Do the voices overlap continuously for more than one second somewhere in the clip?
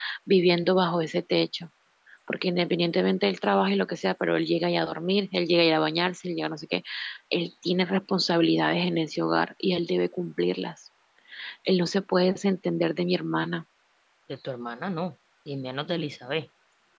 No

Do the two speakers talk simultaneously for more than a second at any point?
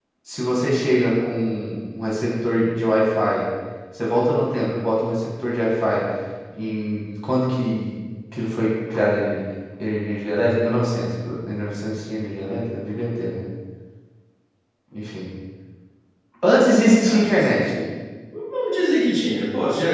No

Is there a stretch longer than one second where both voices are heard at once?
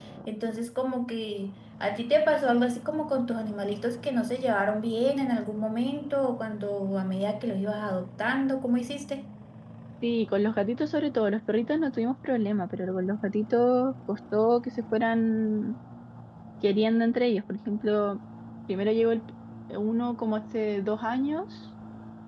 No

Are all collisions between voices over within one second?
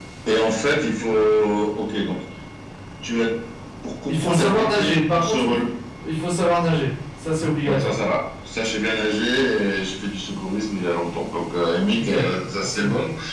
No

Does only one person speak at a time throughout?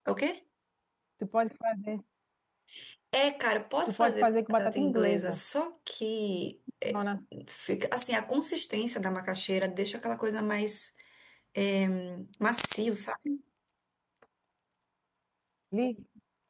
No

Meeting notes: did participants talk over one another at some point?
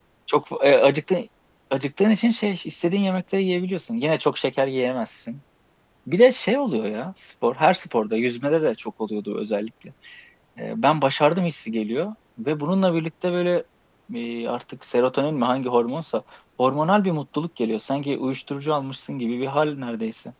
No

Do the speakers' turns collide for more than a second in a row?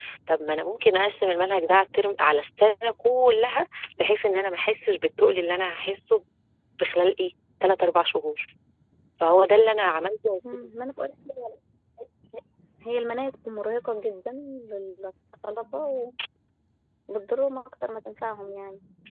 No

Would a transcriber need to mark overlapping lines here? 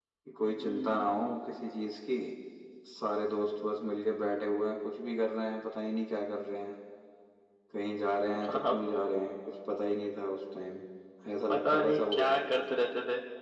Yes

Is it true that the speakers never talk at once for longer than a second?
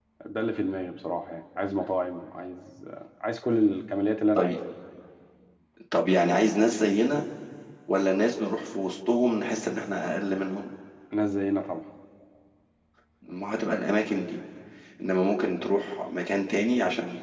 Yes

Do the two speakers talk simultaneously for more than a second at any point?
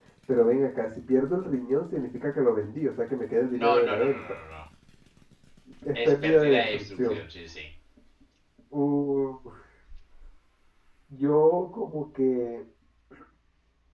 Yes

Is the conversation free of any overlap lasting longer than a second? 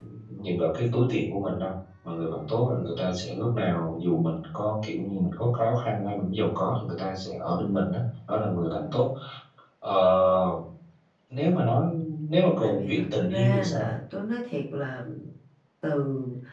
No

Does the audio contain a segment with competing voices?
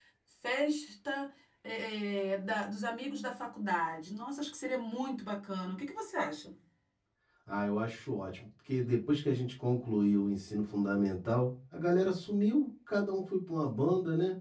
No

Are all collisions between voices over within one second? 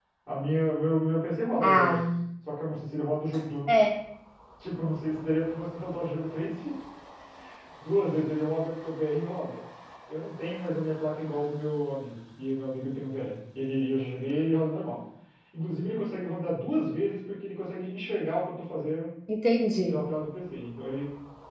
Yes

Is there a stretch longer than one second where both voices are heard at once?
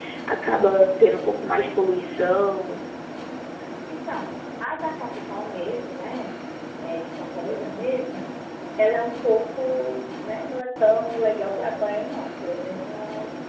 No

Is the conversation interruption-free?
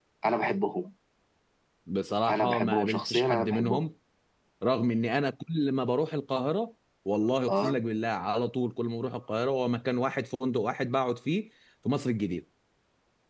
No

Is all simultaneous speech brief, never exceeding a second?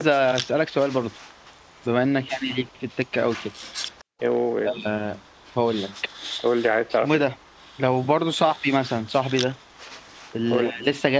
Yes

